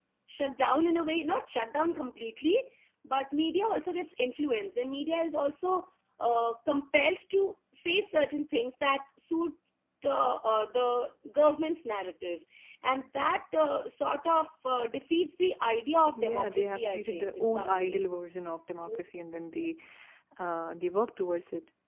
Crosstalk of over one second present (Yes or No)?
Yes